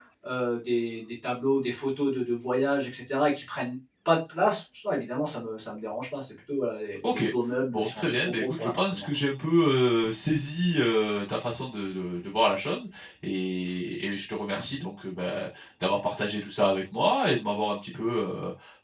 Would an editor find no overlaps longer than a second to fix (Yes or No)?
No